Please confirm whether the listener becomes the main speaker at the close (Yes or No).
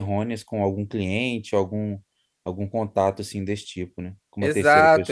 Yes